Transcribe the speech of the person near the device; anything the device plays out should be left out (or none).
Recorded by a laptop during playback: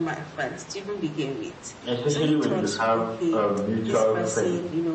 especially when you have uh, mutual friends